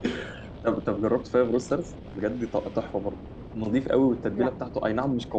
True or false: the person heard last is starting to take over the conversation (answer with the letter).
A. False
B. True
A